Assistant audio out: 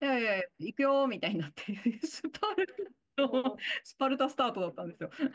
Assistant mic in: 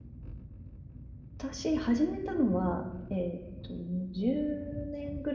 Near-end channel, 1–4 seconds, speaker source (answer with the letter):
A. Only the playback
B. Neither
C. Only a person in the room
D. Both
C